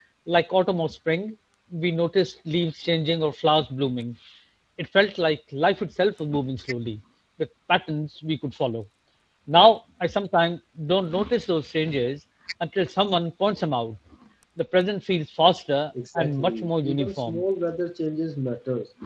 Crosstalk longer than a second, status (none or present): present